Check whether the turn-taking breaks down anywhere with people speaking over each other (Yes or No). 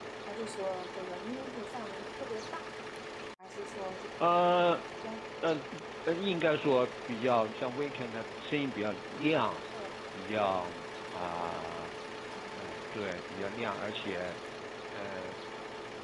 No